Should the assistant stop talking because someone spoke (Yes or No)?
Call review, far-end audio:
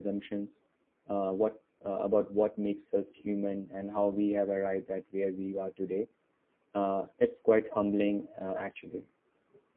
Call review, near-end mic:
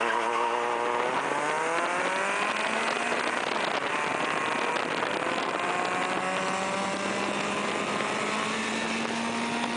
No